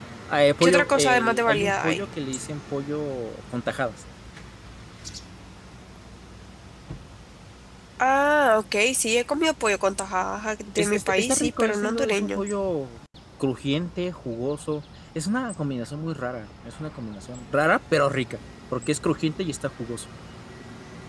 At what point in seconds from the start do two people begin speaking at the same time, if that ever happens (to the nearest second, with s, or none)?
1 s